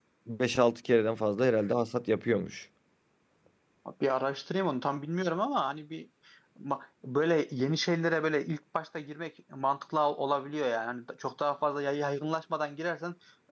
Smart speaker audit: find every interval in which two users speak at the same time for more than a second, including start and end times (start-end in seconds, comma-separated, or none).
none